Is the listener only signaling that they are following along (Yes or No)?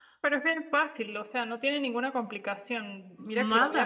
Yes